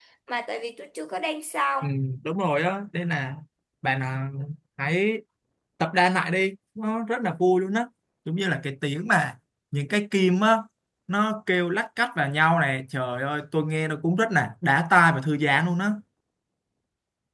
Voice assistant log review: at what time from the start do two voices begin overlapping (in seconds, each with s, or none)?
none